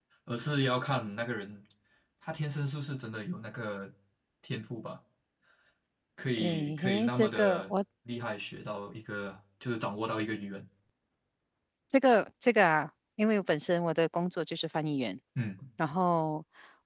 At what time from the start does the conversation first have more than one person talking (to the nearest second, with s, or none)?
6 s